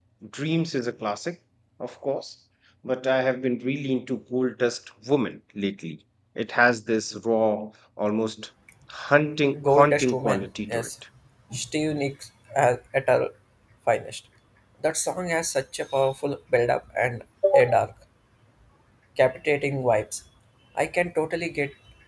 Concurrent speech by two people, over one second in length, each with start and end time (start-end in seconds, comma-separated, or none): 9.6-10.9